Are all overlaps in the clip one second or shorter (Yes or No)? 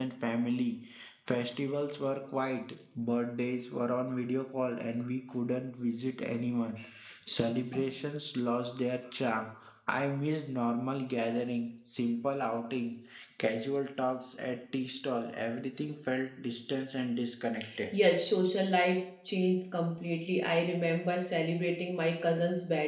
Yes